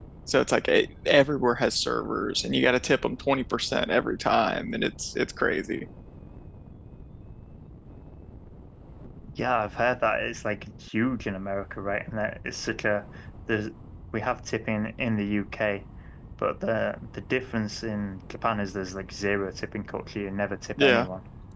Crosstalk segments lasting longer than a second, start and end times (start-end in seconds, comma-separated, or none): none